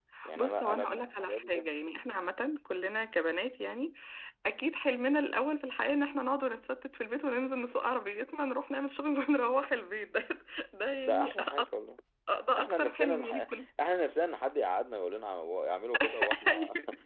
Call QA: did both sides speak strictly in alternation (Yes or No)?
No